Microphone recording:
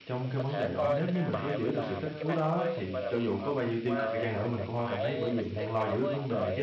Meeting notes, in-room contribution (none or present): present